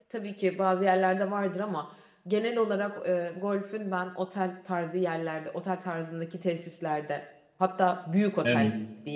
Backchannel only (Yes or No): Yes